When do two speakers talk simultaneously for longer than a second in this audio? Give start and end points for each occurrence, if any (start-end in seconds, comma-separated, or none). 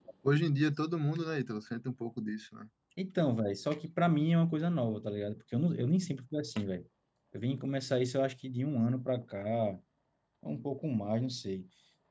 none